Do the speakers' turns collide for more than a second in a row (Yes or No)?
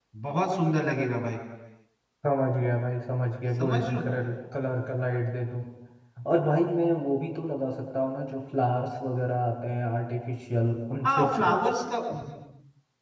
No